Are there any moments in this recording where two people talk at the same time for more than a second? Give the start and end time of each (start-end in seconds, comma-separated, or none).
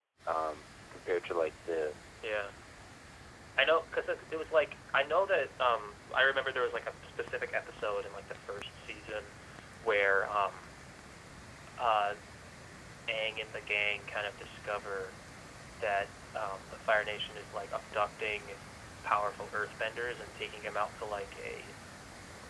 none